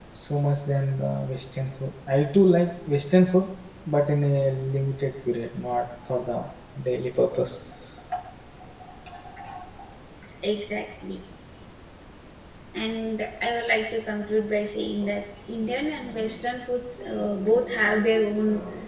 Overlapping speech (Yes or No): No